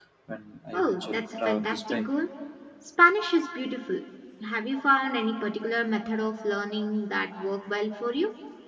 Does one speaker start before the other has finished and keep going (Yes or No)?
Yes